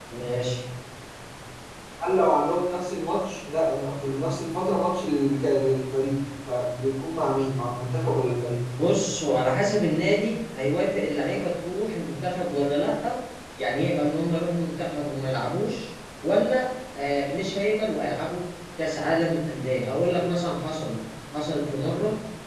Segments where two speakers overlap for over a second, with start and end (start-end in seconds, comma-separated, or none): none